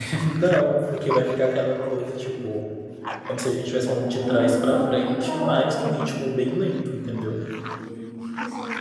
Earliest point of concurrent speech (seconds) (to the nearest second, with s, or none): 4 s